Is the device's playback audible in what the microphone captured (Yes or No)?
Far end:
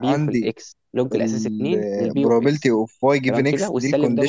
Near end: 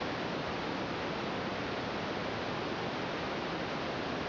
No